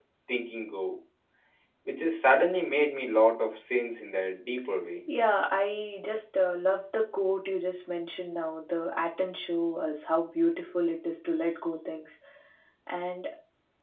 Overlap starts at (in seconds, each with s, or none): none